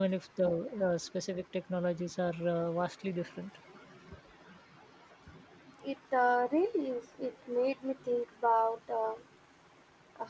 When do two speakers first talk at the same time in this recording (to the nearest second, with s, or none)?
none